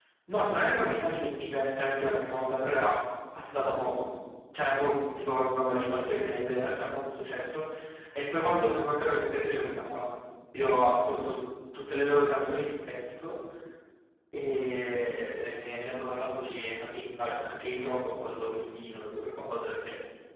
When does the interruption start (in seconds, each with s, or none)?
none